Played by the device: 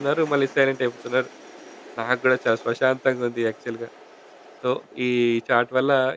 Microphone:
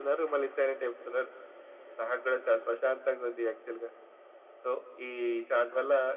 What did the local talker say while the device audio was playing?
none

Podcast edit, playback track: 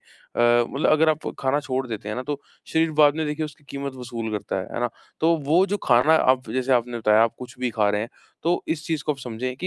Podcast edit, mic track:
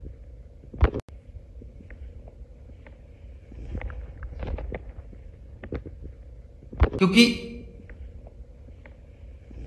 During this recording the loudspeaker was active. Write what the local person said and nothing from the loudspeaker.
क्योंकि

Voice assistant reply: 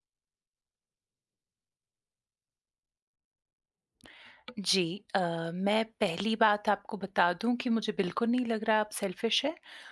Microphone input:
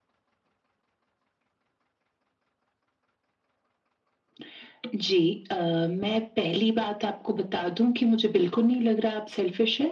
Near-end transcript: none

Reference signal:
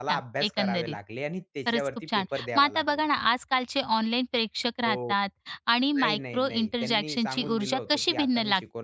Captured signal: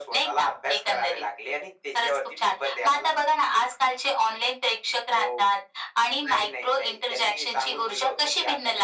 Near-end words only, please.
none

